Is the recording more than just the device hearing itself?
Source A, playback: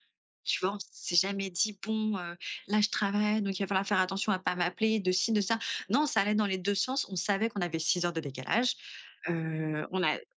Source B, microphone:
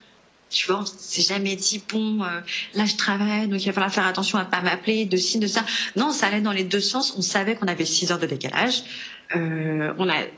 No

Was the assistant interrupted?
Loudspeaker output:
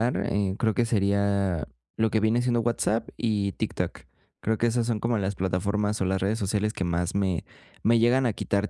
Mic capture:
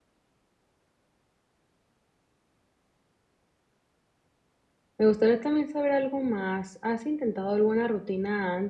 Yes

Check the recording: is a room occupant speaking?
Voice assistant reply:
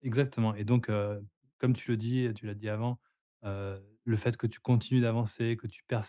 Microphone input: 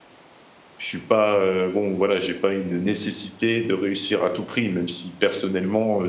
Yes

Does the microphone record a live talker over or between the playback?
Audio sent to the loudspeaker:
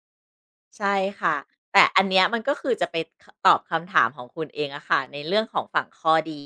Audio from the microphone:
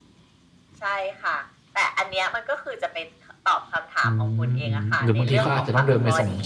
Yes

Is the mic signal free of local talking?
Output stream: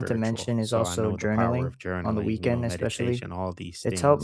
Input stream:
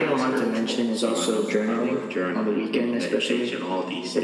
Yes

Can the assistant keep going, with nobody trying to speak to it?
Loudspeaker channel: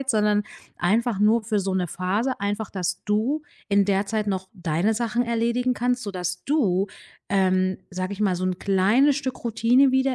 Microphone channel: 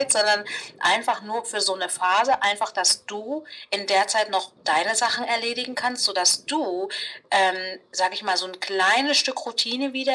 Yes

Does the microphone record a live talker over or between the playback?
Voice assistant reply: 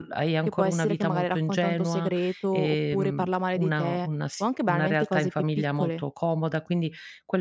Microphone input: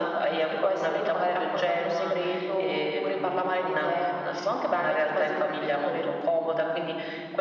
No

